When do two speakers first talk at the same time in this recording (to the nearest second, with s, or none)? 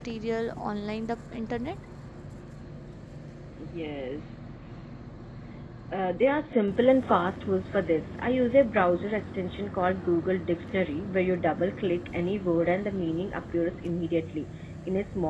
none